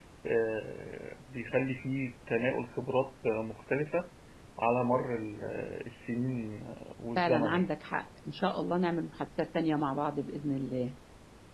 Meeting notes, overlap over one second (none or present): none